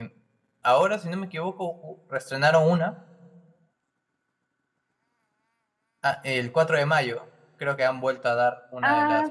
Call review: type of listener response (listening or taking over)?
taking over